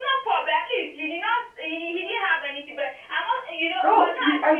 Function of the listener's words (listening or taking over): taking over